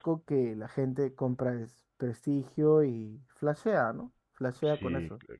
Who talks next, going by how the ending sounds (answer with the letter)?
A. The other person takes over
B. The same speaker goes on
A